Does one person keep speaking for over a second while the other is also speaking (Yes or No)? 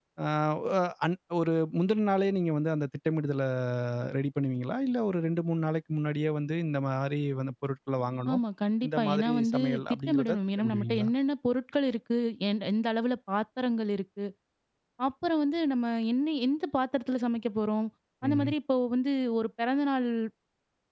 Yes